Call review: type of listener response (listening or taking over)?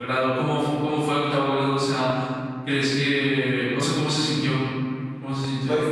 taking over